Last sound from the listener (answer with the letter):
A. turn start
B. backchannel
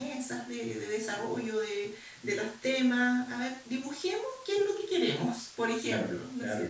A